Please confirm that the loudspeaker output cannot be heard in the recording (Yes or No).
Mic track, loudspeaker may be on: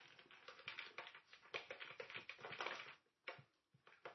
Yes